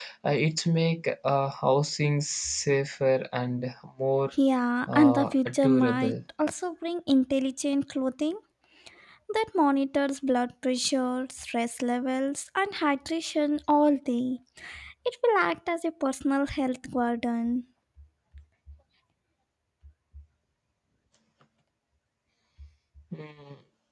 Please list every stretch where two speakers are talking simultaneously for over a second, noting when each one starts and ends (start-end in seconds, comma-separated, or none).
4.9-6.1